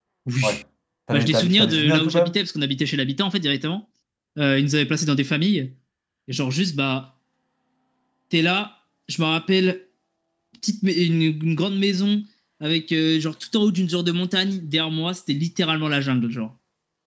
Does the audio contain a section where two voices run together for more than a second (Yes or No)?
Yes